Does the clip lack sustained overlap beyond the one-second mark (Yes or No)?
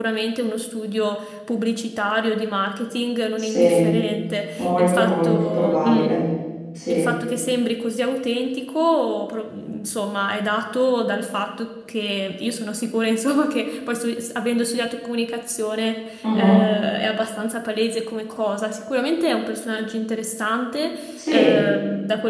No